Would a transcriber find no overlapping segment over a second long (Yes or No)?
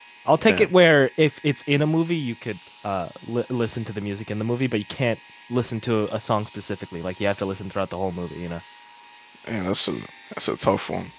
Yes